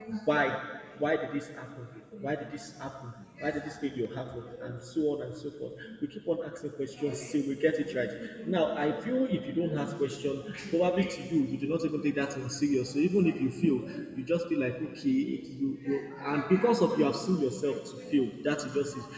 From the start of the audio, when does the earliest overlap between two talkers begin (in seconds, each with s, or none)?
none